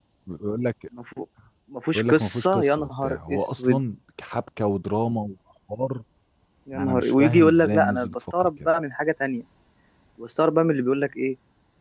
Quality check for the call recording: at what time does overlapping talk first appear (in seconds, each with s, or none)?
2.0 s